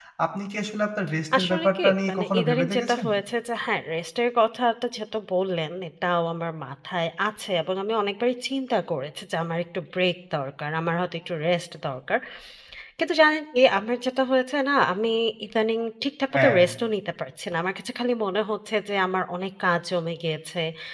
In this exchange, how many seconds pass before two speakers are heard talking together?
1 s

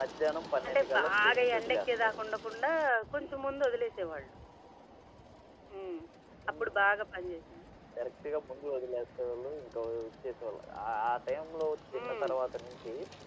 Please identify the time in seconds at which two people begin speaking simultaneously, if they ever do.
1 s

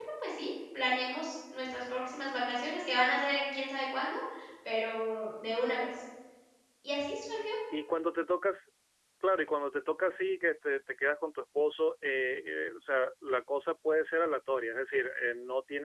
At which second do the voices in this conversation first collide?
none

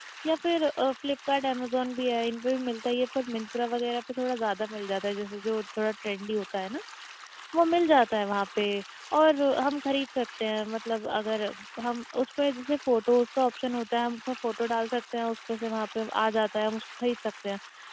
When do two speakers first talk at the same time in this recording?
none

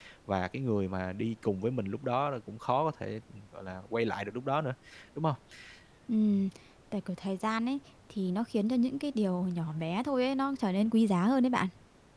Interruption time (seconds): none

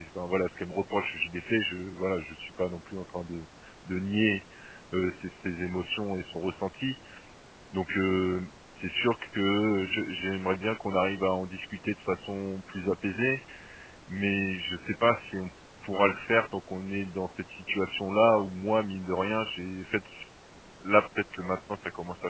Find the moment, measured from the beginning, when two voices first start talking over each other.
none

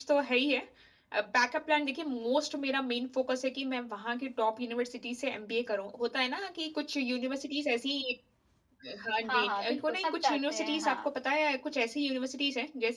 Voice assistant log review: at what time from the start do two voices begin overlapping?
9 s

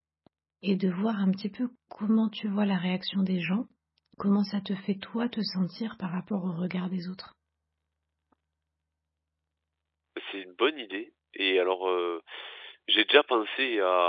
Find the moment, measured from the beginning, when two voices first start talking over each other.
none

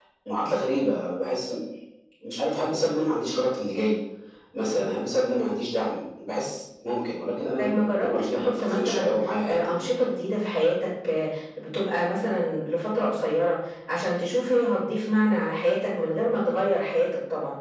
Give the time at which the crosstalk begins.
8 s

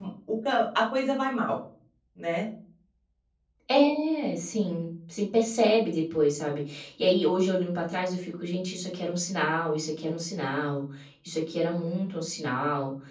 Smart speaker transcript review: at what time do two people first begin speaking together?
none

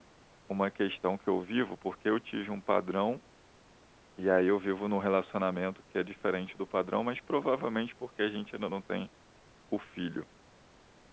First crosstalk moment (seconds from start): none

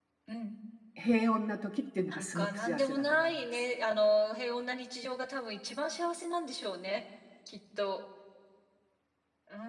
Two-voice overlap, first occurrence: 2 s

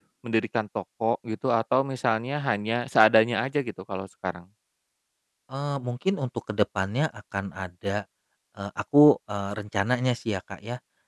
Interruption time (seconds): none

